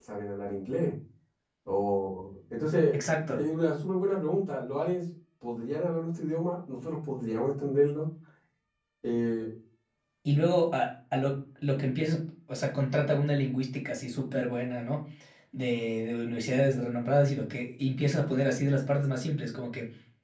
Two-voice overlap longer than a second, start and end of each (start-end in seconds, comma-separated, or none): none